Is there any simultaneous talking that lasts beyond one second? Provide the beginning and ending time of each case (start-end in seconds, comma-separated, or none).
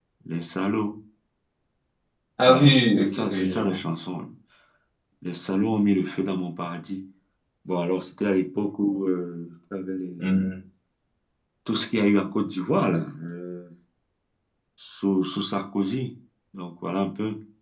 2.5-3.8